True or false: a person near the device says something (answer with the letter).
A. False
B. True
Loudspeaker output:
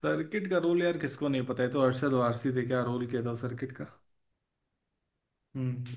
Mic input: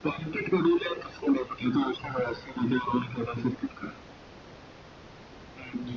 A